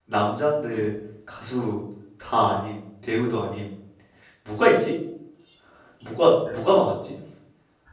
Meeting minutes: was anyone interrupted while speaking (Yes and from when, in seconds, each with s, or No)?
No